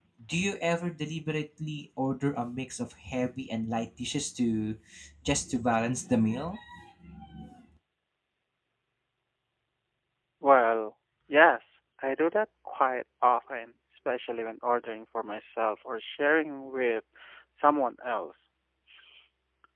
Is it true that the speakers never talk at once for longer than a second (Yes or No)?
Yes